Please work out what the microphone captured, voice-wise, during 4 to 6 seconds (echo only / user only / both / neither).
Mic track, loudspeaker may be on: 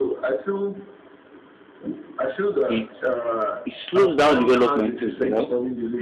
both